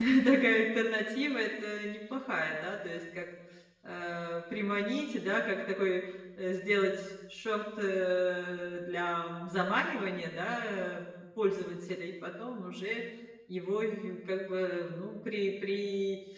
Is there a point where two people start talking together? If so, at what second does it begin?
none

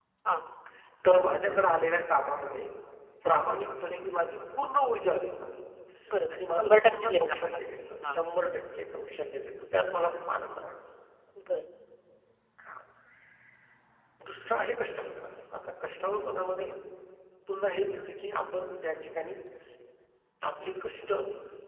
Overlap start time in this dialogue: 6.6 s

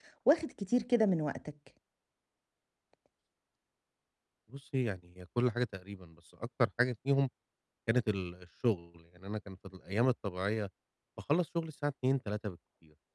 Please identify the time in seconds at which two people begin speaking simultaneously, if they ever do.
none

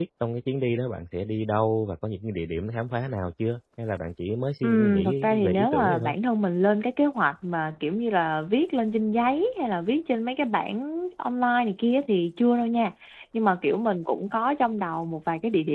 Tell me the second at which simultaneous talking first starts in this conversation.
4.6 s

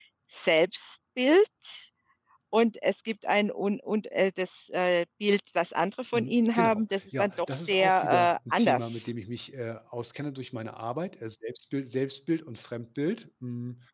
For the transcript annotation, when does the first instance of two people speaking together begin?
6.1 s

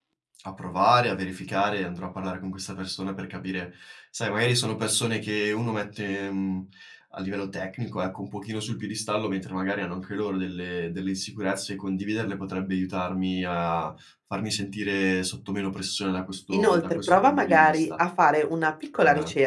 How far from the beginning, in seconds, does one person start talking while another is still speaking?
16.5 s

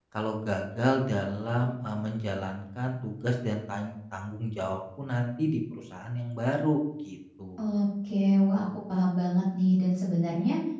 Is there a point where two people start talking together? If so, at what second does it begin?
none

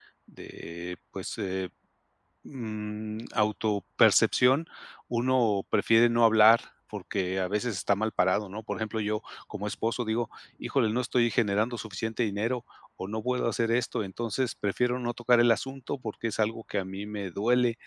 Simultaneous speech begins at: none

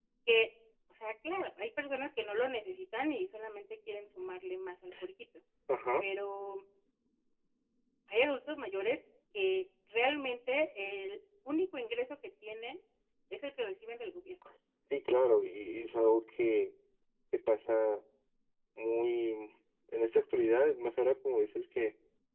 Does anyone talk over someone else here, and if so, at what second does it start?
none

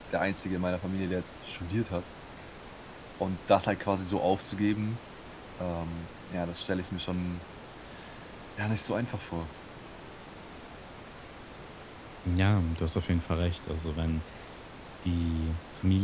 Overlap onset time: none

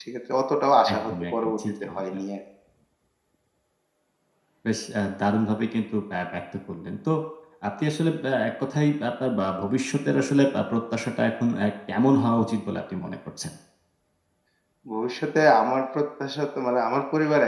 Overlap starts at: 0.9 s

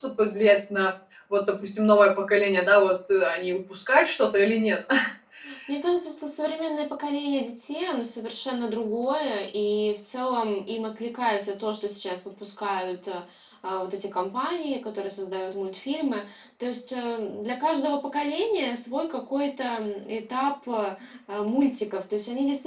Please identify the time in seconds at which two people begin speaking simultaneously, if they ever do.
none

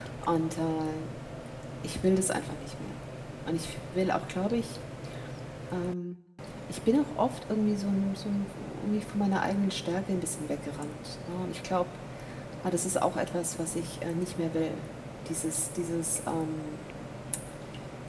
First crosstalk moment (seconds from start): none

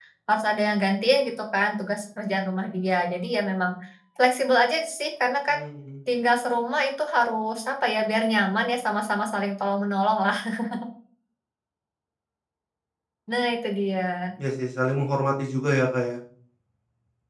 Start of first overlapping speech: none

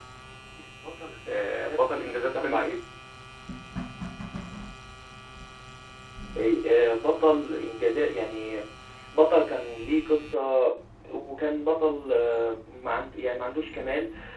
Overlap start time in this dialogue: 1.3 s

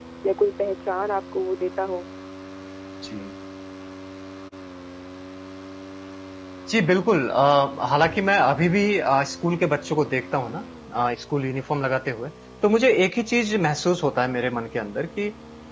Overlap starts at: none

